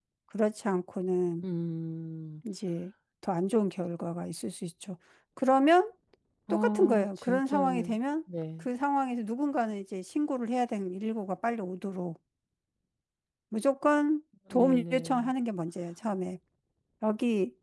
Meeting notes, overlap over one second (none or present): present